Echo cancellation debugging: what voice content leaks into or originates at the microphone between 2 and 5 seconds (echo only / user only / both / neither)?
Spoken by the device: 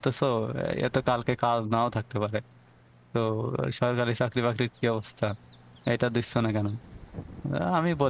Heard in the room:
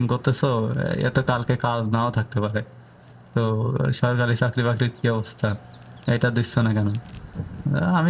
echo only